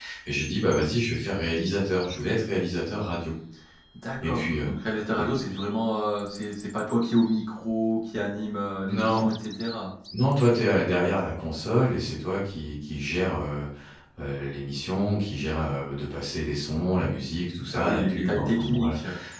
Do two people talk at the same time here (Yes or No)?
Yes